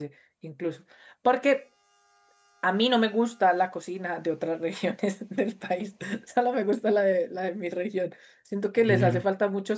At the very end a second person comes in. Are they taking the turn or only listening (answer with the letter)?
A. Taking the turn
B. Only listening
B